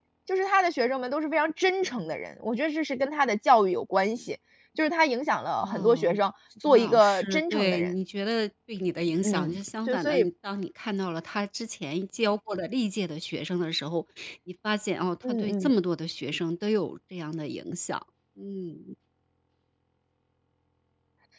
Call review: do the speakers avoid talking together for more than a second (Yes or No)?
No